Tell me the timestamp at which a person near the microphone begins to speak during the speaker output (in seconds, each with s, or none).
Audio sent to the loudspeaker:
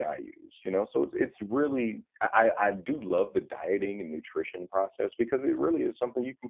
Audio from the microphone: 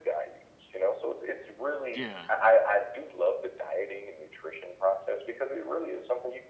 1.9 s